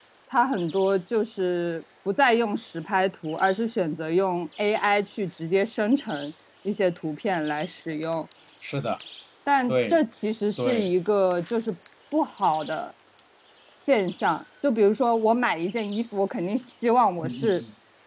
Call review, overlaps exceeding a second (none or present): none